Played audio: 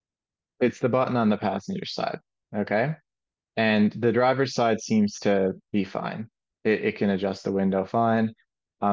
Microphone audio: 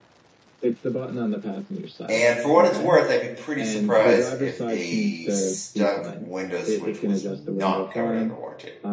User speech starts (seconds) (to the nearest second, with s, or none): 2 s